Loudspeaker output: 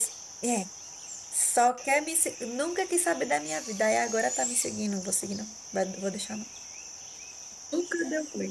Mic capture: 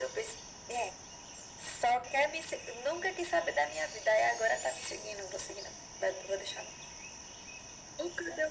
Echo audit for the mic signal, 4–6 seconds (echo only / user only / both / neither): echo only